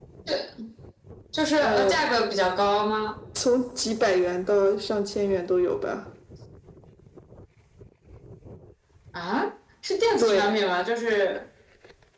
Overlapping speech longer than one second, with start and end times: none

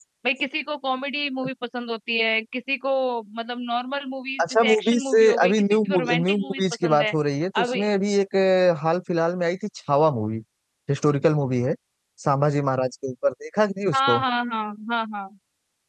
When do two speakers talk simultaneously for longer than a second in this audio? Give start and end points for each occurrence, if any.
4.4-7.1

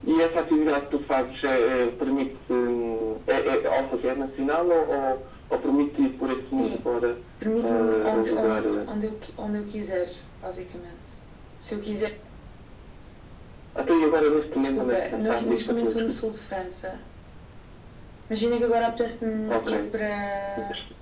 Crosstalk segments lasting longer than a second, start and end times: 7.6-8.9, 14.8-16.1

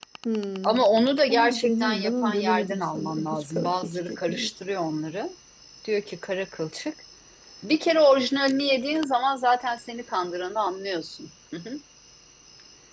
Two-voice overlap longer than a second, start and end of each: 1.3-4.5

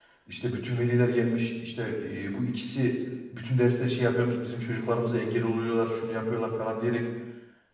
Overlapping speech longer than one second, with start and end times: none

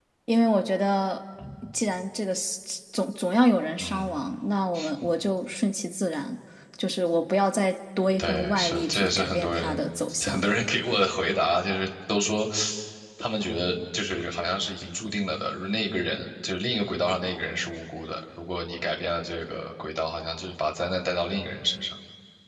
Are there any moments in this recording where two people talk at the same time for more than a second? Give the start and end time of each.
8.2-9.8

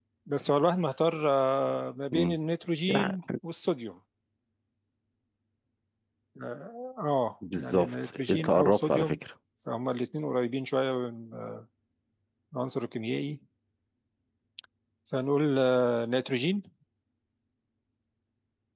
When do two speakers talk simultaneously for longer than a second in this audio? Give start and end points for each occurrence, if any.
7.5-9.2

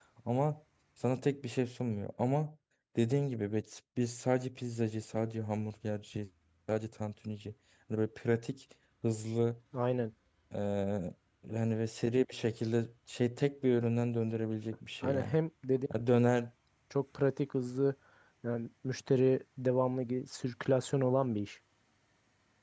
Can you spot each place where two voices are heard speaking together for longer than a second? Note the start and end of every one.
none

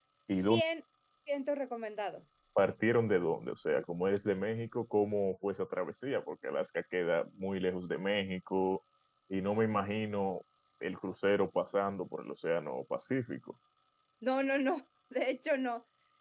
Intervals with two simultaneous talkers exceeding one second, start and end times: none

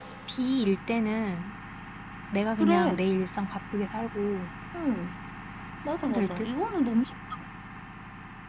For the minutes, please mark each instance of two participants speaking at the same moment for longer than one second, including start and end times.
none

